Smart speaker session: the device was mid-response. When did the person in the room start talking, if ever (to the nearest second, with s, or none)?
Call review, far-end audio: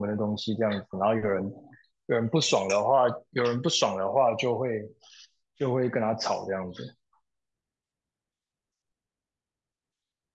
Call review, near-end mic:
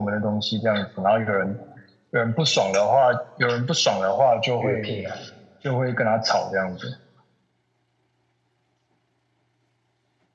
5 s